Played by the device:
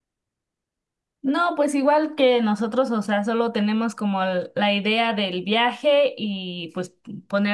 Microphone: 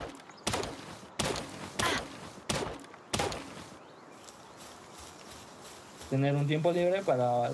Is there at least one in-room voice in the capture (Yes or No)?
Yes